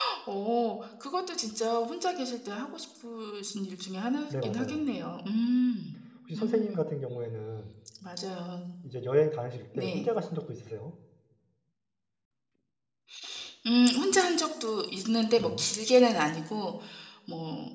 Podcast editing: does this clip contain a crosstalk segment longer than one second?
No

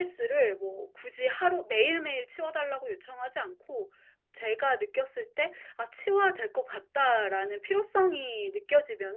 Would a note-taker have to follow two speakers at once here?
No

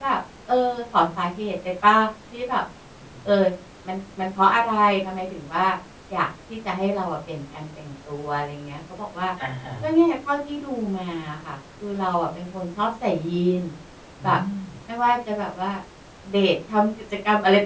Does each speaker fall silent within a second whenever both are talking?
Yes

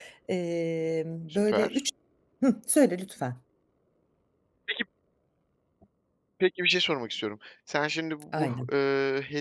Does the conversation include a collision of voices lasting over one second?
No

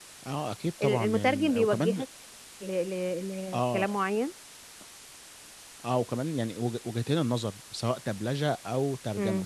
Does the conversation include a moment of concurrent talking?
Yes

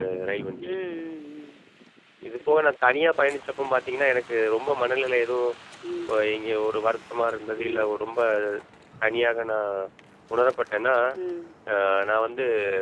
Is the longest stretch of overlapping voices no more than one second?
Yes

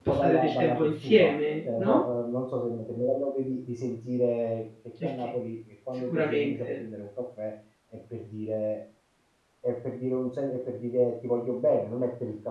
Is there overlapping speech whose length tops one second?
Yes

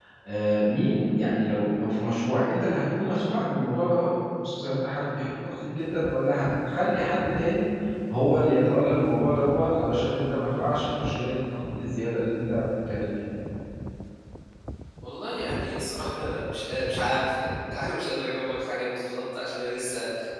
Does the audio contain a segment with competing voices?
No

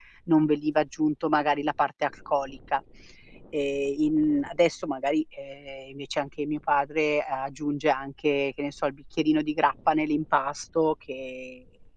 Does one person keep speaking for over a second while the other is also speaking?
No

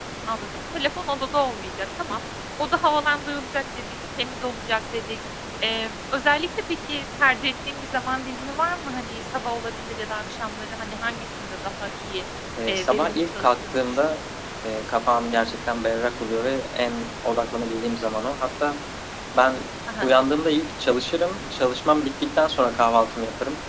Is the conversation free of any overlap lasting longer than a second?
No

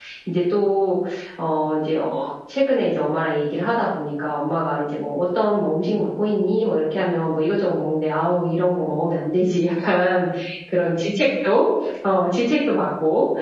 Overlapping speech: No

